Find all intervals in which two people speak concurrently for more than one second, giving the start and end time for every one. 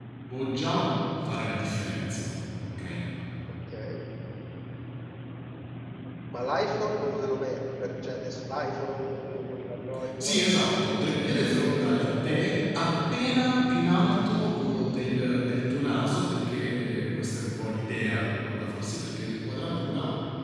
10.8-12.6

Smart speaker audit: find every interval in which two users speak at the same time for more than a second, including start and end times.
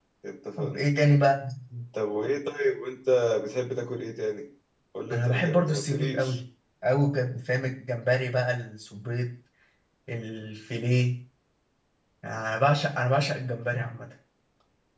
5.1-6.4

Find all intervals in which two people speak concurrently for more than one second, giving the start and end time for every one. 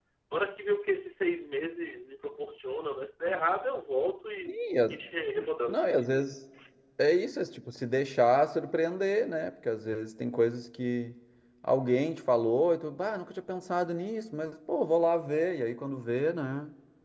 none

